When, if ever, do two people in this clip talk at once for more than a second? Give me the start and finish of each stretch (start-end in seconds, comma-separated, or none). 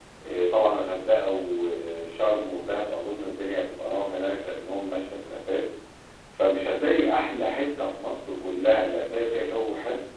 none